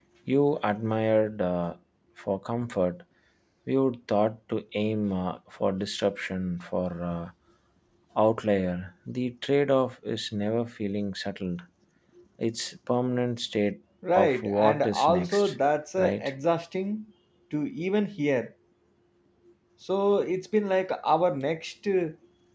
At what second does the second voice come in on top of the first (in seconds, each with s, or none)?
14.2 s